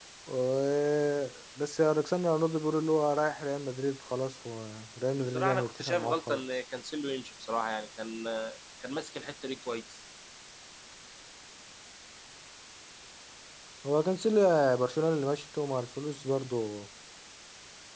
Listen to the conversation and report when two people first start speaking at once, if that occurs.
5.2 s

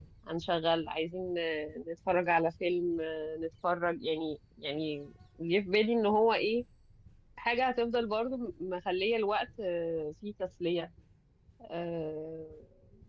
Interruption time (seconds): none

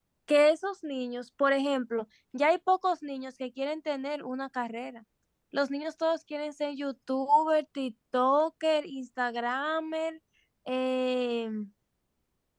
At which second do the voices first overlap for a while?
none

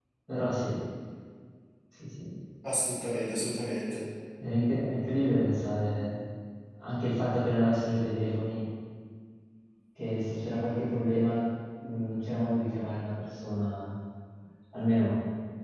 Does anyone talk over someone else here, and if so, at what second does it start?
none

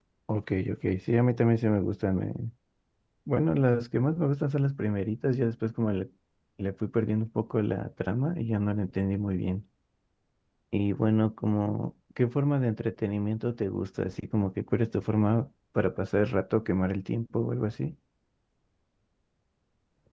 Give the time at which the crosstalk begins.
none

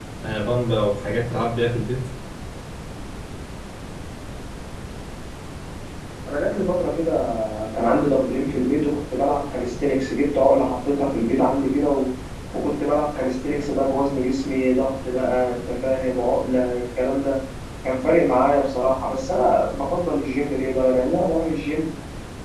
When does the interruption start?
none

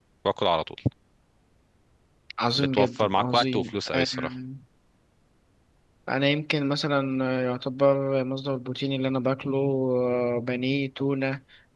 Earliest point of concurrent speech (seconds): 2.6 s

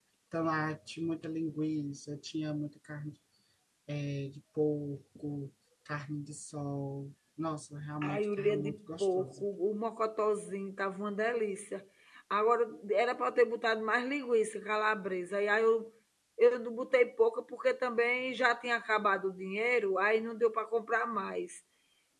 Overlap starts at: 8.0 s

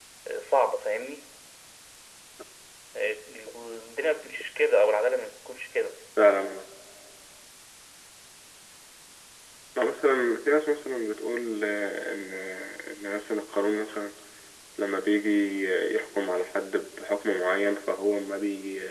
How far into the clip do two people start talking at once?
none

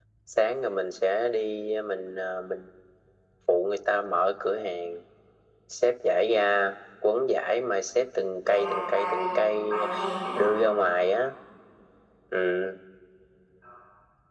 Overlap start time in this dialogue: 8.4 s

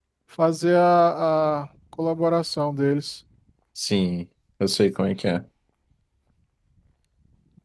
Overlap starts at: none

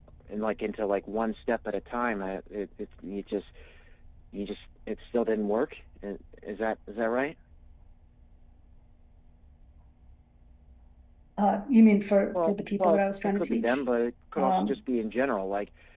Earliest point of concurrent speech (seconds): 12.3 s

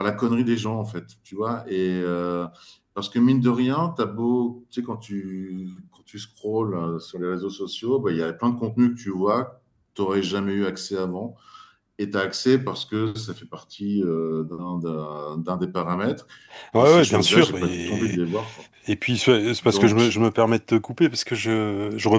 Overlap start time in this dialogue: 16.8 s

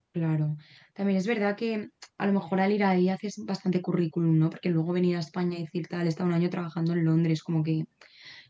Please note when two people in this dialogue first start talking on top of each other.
none

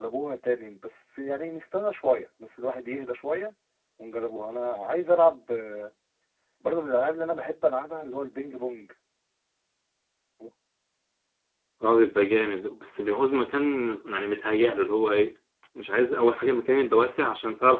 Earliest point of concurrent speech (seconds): none

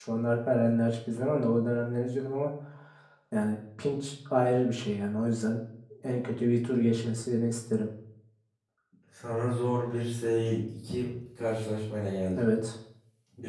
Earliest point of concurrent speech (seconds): none

